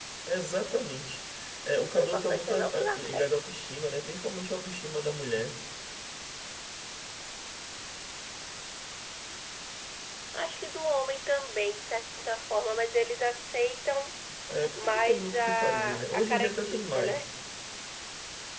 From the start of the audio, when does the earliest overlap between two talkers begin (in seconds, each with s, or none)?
1.9 s